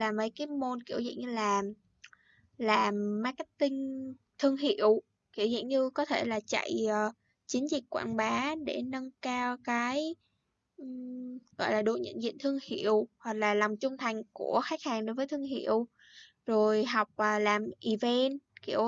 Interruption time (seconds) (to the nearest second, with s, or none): none